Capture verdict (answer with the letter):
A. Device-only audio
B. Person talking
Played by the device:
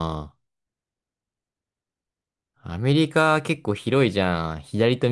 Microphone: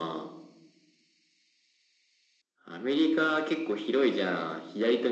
A